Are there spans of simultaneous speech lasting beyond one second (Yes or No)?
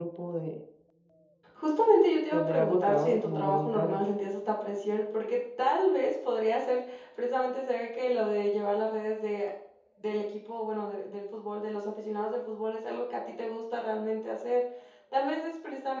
Yes